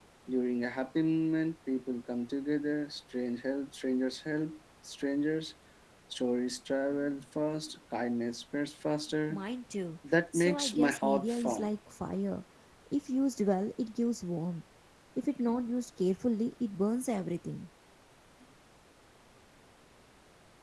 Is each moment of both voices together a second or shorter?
No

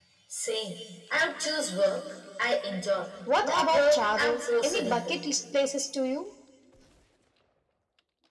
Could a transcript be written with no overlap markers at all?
No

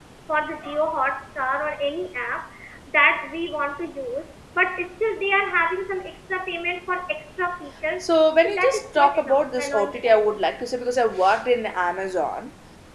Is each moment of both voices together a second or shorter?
No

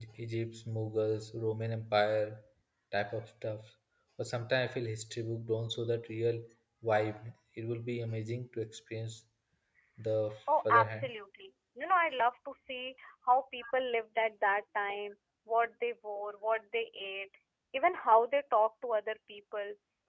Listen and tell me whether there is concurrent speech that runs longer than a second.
No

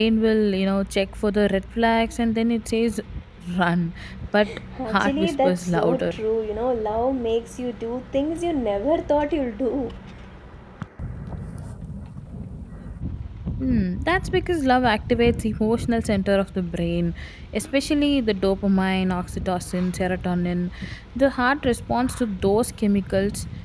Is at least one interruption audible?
Yes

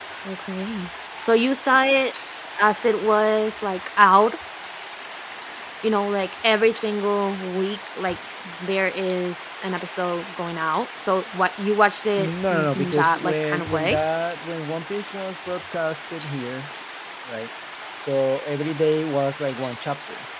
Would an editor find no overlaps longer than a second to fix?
No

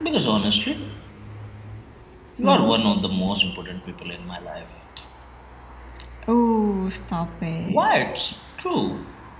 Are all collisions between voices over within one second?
Yes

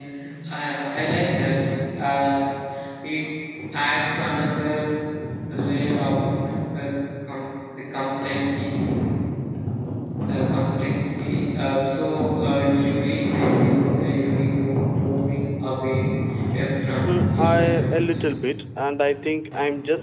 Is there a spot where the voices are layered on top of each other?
Yes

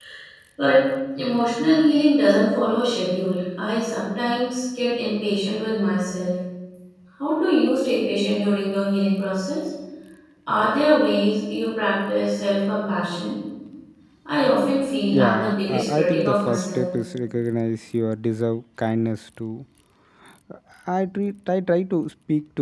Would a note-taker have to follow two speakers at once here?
Yes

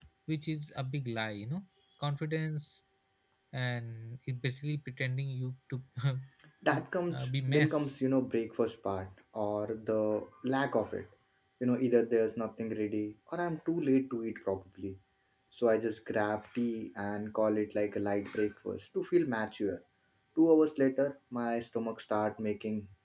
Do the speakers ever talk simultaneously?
Yes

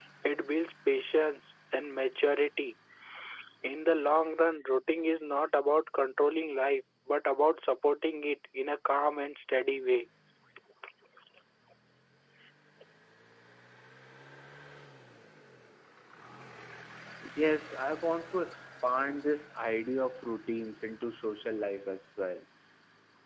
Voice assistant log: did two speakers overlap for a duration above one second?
No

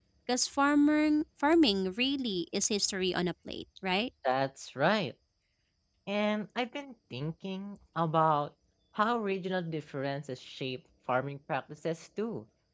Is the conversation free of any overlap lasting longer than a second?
Yes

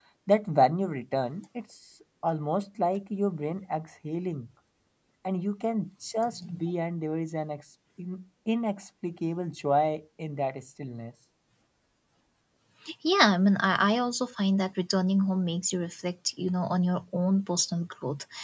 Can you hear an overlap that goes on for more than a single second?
No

